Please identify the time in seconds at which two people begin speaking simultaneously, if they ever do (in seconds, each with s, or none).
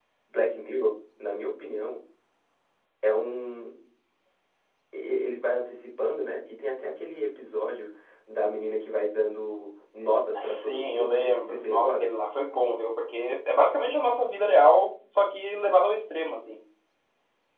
10.3 s